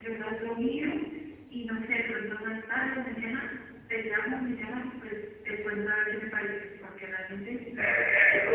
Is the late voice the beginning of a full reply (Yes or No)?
Yes